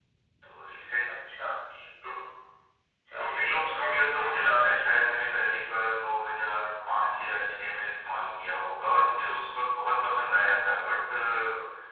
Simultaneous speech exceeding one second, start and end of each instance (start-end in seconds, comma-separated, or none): 3.2-4.7